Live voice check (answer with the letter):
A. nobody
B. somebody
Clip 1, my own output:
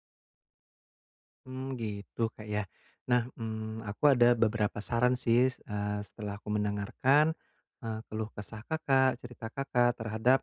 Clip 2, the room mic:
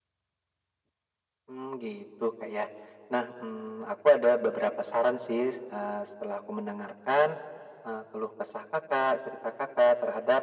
A